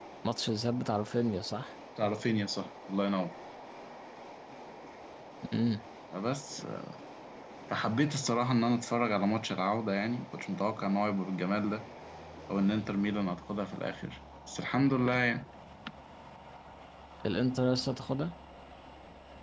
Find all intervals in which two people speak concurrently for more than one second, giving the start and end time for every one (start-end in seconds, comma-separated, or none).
none